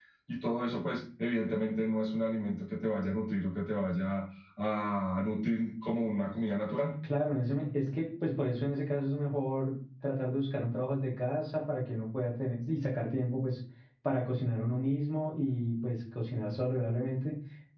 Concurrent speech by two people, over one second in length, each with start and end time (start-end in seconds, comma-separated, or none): none